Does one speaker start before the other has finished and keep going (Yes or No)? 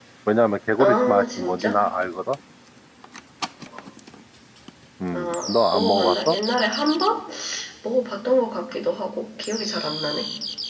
Yes